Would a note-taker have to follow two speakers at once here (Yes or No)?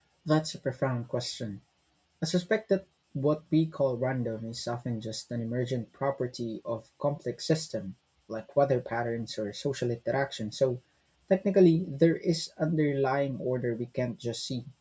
No